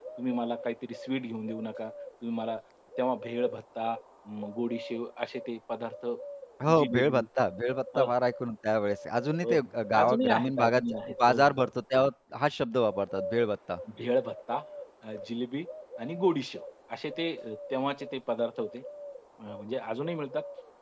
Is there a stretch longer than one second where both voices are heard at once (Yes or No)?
Yes